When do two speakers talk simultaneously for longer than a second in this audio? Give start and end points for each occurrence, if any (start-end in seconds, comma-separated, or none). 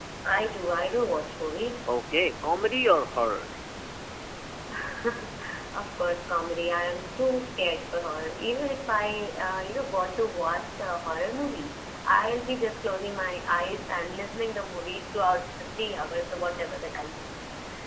none